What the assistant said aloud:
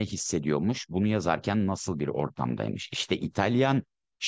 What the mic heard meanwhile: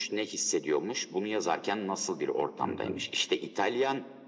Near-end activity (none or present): present